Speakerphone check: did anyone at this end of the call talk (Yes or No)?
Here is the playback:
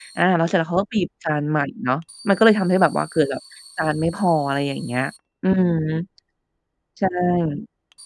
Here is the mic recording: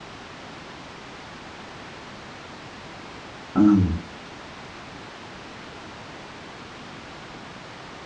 Yes